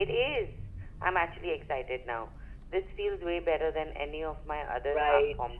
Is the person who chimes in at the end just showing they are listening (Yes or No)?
No